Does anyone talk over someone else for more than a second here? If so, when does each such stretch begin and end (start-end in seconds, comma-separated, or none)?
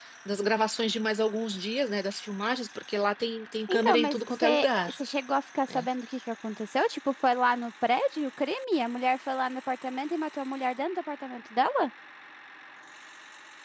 3.7-5.0